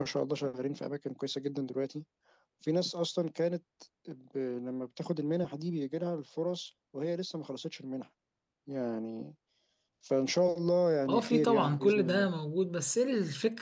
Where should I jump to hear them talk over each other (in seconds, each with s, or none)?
11.1 s